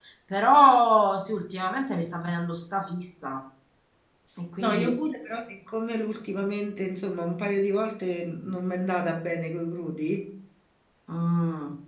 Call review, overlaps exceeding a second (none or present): none